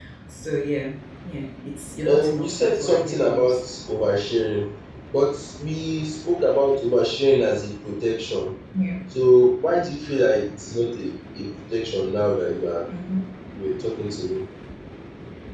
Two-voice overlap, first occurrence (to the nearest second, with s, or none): 2 s